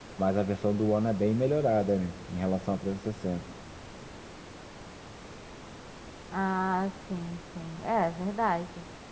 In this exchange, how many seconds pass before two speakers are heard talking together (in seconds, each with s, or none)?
none